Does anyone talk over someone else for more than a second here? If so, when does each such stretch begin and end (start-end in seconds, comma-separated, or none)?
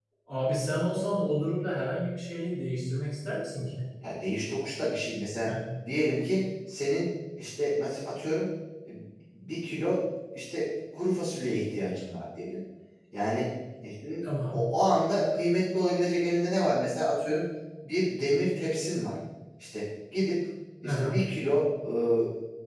none